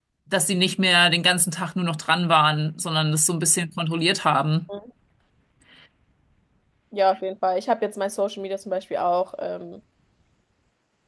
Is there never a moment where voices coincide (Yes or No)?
Yes